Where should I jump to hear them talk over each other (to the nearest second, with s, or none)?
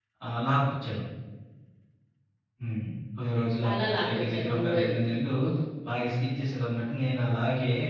4 s